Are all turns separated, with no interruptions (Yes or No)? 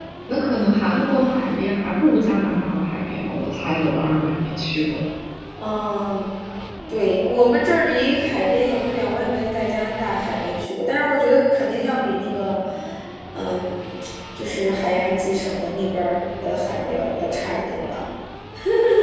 Yes